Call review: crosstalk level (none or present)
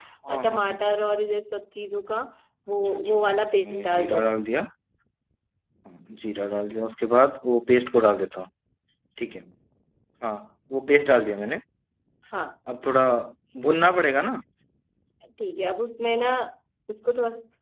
present